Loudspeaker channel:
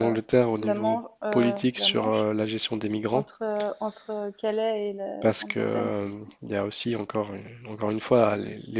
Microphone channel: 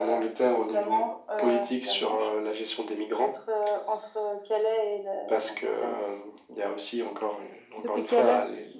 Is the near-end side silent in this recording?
No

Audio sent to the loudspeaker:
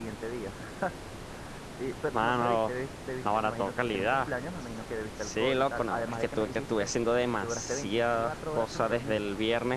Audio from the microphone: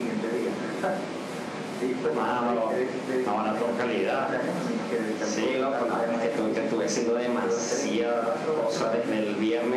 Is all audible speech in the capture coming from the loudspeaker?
Yes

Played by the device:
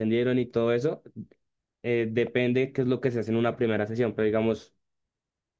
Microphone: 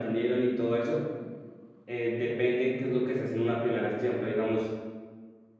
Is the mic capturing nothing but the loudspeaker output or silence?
Yes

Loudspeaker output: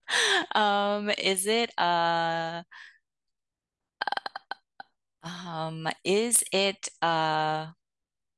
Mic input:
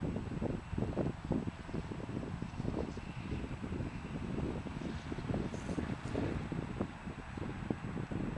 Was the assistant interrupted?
No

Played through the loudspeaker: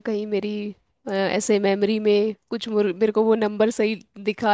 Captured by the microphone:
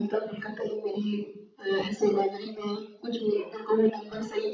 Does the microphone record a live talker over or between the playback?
No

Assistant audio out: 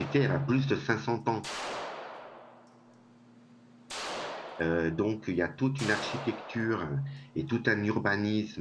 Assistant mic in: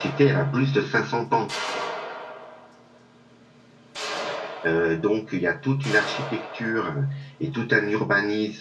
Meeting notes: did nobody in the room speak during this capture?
Yes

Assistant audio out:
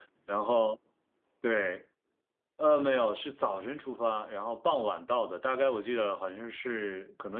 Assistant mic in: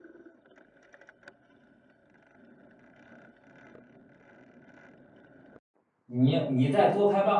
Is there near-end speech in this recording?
Yes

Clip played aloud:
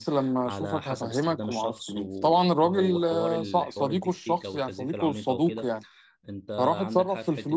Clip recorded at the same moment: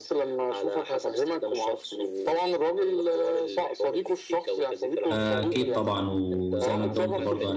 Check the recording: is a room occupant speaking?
Yes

